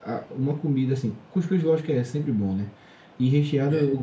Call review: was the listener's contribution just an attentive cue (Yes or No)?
Yes